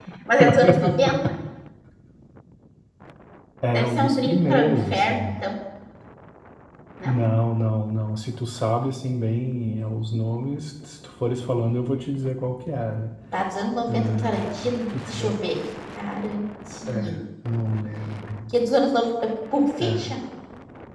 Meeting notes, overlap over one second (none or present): present